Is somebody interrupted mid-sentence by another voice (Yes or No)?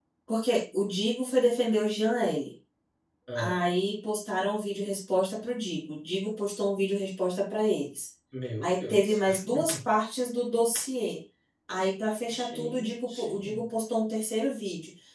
Yes